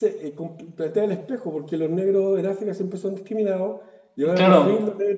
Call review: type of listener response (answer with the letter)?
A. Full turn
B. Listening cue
B